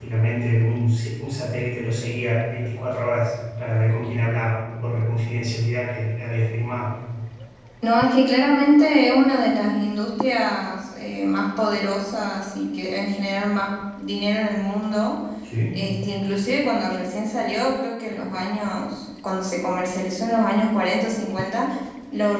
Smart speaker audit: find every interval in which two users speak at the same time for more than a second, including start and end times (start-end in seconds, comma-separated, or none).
none